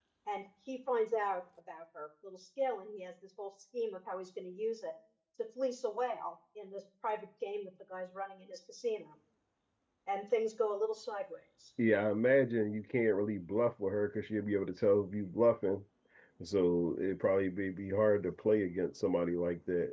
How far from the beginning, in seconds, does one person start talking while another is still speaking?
none

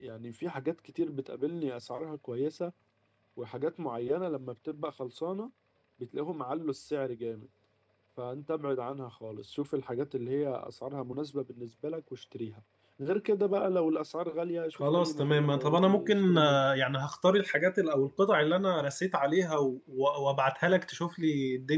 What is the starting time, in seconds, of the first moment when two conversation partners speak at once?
14.8 s

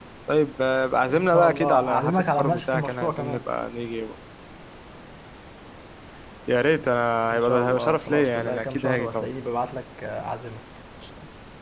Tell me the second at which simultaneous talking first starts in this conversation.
1.1 s

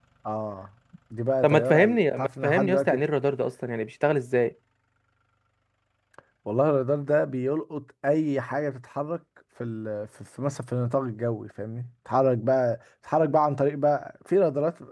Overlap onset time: 1.4 s

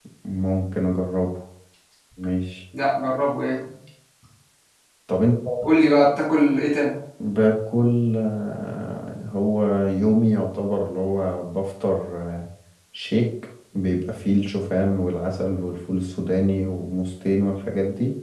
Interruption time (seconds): none

